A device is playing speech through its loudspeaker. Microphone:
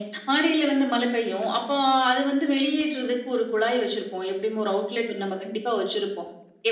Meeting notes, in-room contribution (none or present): none